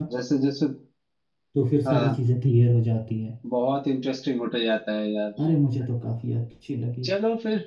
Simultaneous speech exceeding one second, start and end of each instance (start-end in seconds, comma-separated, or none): none